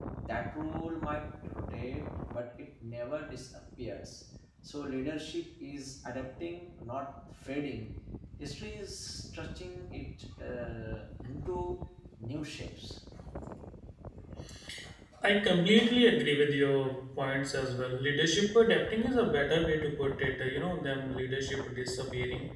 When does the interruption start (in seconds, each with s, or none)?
none